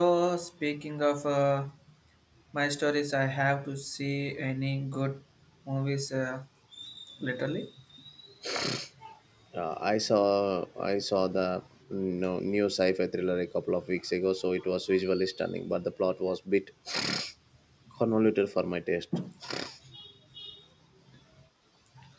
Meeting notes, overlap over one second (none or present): none